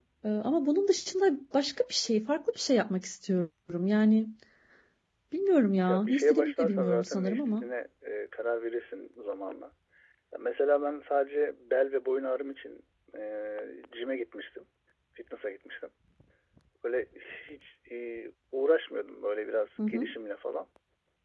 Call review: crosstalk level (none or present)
present